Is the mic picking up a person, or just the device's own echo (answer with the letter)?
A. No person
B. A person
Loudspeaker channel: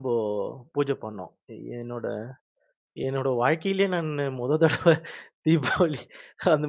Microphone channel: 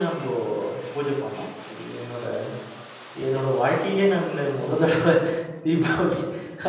A